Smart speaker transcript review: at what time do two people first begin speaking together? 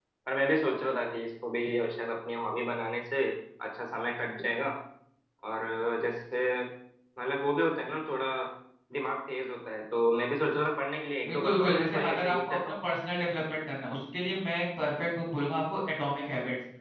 11 s

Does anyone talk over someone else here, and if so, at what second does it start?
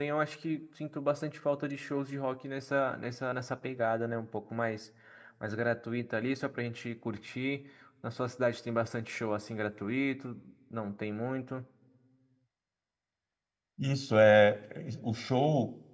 none

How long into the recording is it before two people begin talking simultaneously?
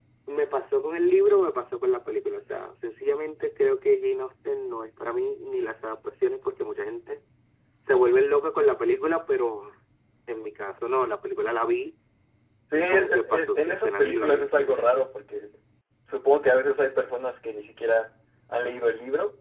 13 s

